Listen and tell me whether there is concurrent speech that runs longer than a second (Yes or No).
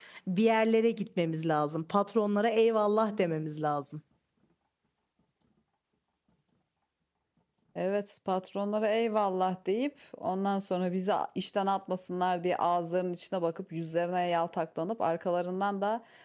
No